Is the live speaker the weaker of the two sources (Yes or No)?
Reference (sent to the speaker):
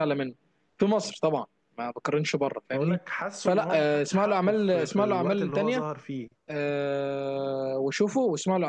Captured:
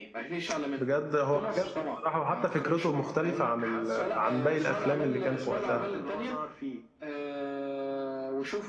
No